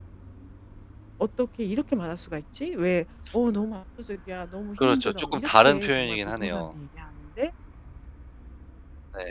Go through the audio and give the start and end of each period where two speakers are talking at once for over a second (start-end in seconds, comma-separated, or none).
4.8-6.7